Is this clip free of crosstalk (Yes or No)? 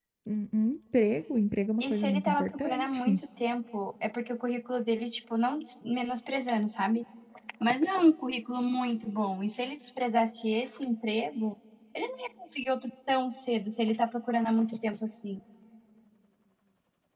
No